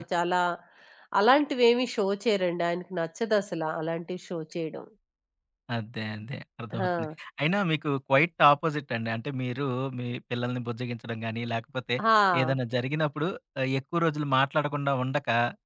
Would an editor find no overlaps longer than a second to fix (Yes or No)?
Yes